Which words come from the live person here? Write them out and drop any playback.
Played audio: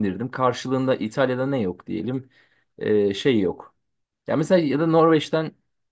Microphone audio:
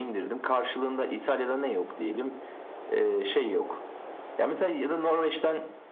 none

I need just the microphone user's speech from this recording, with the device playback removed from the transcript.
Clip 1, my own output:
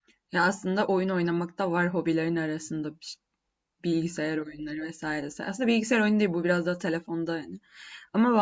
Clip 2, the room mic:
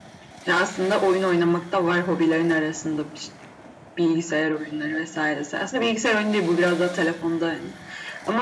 none

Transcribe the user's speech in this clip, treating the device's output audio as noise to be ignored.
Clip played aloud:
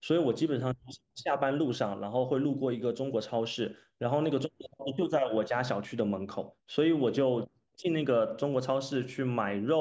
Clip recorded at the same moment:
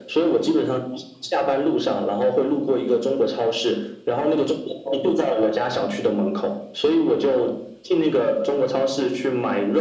none

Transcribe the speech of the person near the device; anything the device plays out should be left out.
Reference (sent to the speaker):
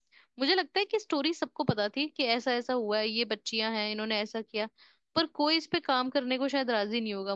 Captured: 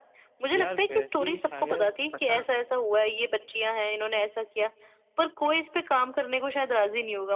यार वैसी शायद पता

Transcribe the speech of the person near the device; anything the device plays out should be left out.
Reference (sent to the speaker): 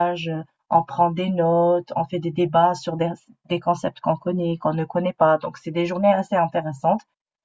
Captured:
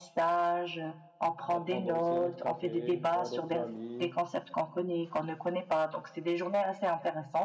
euh, prendre aussi un autre café, voir d'autres amis,

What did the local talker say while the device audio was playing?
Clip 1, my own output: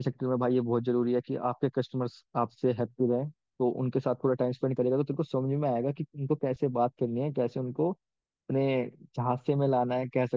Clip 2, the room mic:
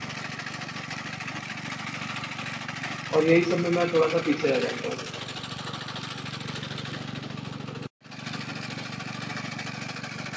और यही सब में मैं थोड़ा सा पीछे रह जाता हूँ

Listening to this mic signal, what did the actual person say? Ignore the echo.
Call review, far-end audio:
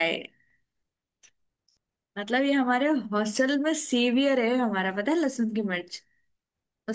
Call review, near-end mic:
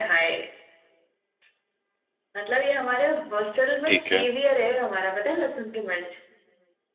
ठीक है

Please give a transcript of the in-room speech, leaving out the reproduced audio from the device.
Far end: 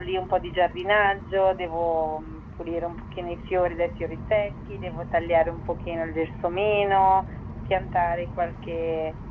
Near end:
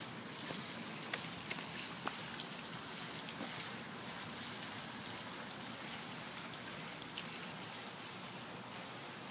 none

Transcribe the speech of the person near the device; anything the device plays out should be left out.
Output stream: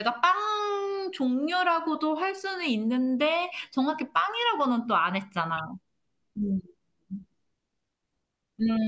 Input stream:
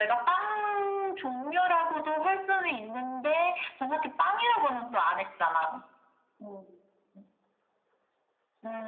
none

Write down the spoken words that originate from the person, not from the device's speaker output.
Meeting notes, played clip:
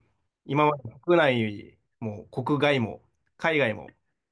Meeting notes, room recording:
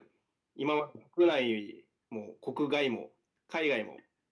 none

